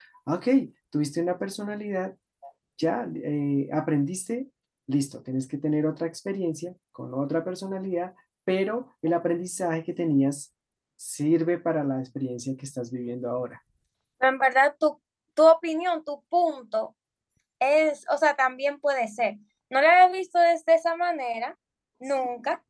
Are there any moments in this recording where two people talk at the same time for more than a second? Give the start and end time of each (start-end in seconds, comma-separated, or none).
none